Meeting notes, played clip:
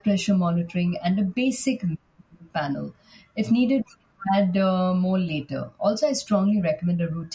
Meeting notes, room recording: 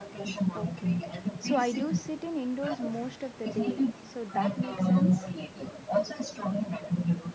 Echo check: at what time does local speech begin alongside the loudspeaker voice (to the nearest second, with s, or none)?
1 s